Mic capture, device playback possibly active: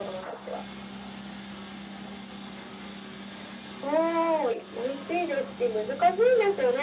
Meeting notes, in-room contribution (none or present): none